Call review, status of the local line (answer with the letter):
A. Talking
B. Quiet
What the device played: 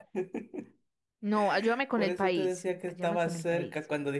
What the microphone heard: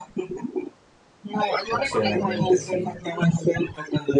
A